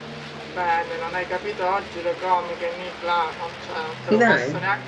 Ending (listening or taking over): listening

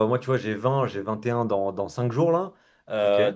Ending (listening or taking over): listening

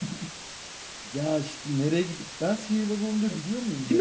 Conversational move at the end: taking over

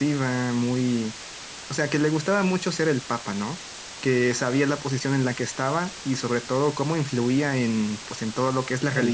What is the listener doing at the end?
taking over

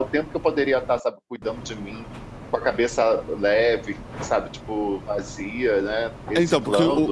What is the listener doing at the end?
taking over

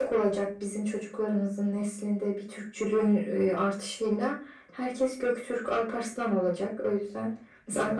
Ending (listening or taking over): listening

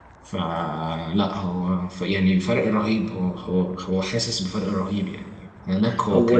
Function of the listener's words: listening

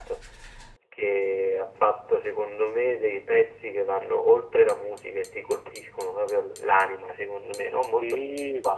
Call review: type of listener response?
taking over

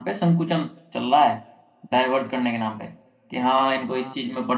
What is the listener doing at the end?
listening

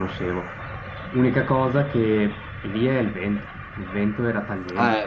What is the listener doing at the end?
listening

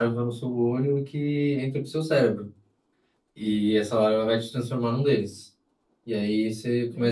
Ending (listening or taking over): listening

